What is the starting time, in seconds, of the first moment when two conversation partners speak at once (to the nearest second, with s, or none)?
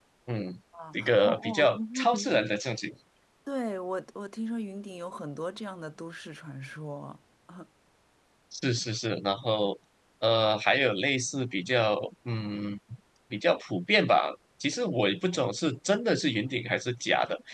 1 s